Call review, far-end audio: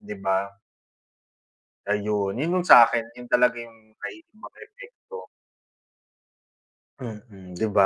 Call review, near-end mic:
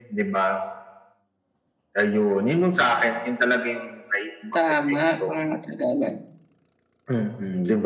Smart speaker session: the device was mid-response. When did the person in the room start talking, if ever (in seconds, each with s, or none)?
4.5 s